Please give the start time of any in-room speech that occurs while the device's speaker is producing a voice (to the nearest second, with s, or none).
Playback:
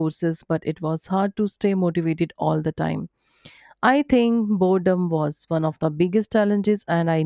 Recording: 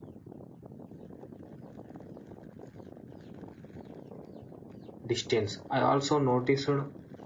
5 s